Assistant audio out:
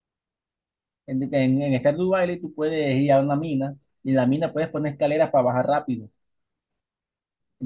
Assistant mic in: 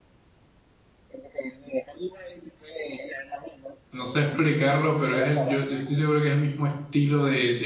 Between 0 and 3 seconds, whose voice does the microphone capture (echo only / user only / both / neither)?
echo only